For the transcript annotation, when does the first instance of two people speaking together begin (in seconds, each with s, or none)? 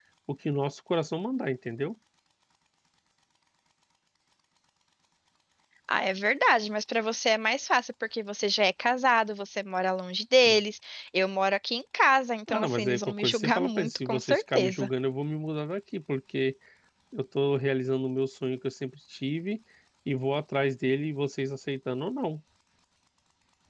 12.5 s